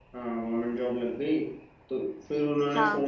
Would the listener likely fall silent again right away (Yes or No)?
Yes